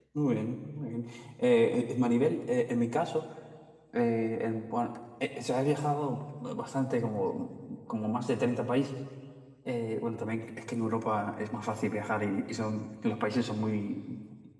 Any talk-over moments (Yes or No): No